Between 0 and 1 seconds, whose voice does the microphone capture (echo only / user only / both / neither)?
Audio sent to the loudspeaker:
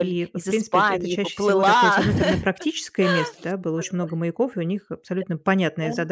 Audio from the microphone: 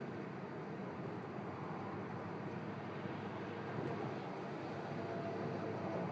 neither